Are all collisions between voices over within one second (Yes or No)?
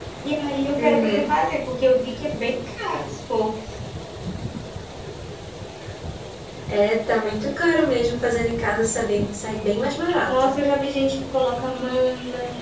Yes